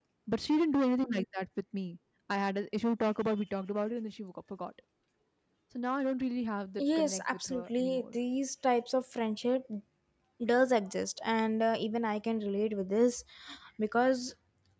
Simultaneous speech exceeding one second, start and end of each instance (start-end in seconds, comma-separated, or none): 6.8-8.2